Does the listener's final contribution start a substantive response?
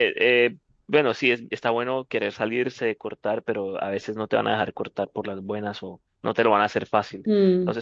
Yes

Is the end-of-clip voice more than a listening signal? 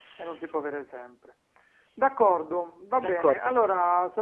No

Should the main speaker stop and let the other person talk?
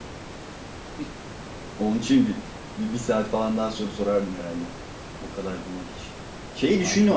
No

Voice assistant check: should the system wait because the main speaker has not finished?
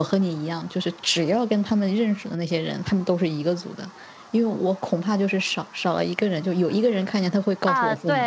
No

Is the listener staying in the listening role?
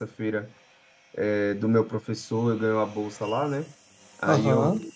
Yes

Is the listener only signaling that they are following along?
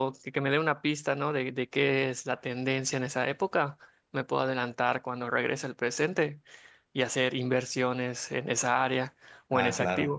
No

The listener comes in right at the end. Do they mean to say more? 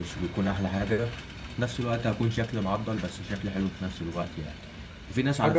No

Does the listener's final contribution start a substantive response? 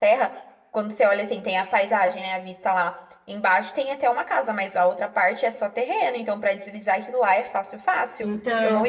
Yes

